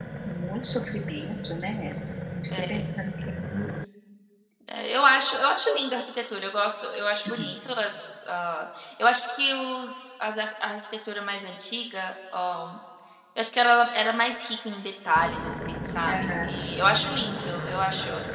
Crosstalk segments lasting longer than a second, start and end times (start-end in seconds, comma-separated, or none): none